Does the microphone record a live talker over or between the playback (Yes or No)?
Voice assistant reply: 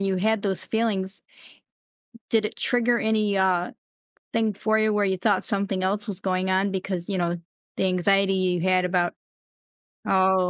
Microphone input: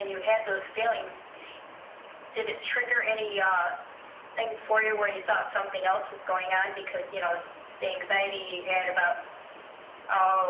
No